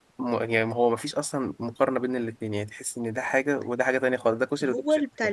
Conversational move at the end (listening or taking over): taking over